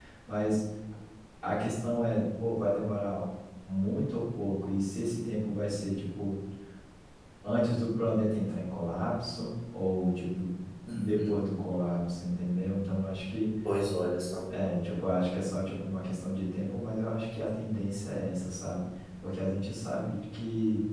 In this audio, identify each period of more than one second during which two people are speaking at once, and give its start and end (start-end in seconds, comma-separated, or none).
none